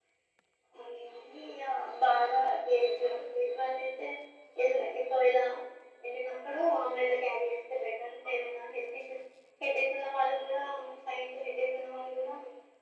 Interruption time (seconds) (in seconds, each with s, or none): none